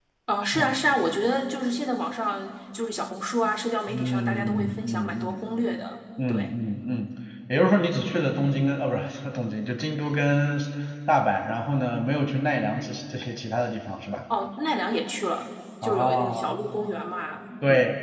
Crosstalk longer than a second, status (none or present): present